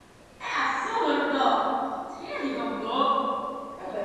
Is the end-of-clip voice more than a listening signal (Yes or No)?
Yes